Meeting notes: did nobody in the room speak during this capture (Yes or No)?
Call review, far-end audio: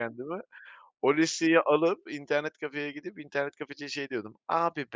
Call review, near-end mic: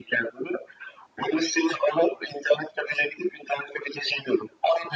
Yes